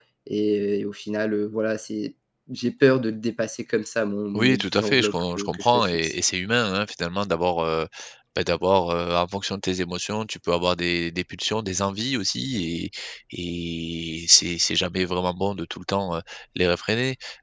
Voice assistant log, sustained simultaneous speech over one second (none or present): present